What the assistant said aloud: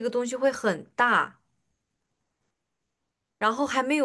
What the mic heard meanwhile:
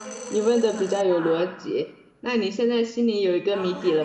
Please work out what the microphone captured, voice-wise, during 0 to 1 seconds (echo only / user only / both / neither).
both